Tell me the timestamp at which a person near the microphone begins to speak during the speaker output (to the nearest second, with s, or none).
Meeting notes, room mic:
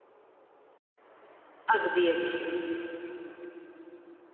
2 s